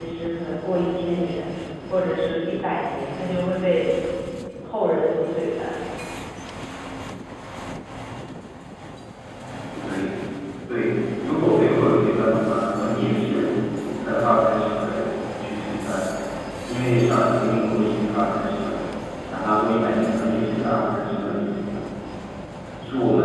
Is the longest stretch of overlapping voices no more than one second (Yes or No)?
Yes